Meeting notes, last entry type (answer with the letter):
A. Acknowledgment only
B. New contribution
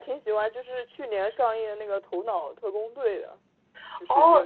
B